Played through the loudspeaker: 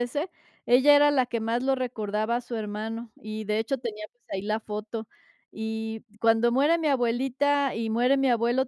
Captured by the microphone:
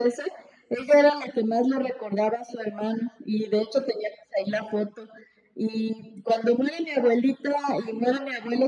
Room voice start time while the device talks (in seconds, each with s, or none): none